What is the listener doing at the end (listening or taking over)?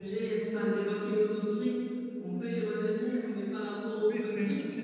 taking over